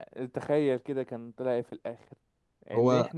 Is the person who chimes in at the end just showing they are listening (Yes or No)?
Yes